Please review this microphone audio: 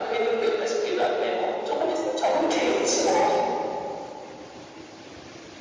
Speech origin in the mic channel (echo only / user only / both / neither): echo only